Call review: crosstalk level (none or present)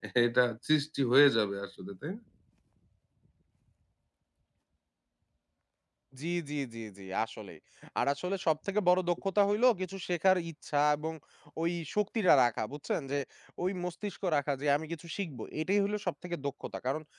none